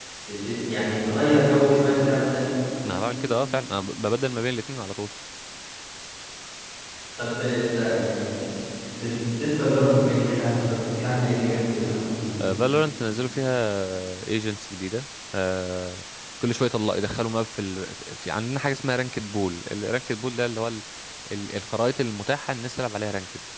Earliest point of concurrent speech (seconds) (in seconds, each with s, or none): none